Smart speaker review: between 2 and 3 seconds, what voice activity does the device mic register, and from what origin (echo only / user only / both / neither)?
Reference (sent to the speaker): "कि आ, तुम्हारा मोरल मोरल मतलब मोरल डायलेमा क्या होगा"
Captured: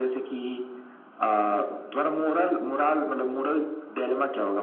echo only